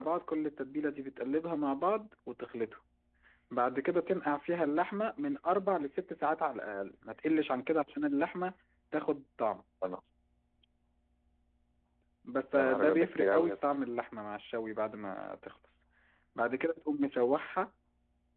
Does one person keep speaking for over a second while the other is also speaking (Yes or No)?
Yes